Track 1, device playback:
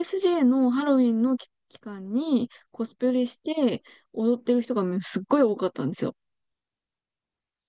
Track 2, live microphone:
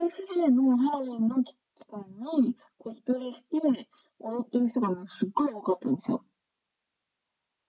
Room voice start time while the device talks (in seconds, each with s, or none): none